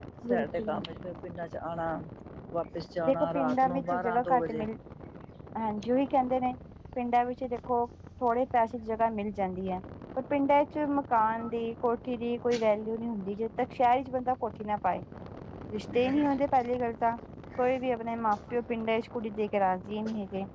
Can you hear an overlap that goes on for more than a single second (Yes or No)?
Yes